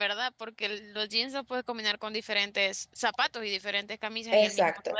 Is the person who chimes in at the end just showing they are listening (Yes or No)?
No